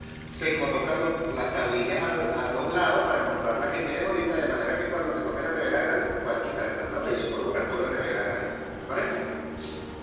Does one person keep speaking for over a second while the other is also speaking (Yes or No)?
Yes